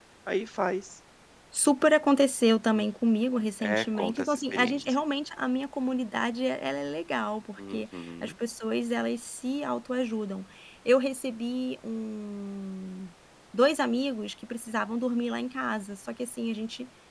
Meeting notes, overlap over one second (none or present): present